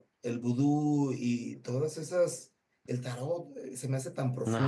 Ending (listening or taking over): listening